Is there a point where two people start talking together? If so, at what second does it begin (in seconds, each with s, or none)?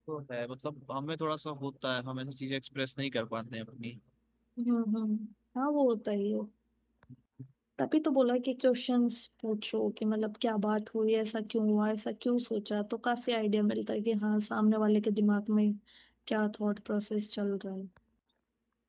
none